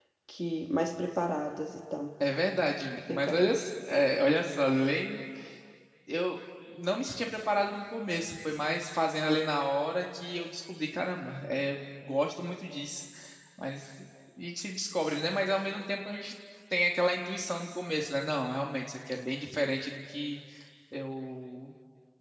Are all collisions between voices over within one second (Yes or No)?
Yes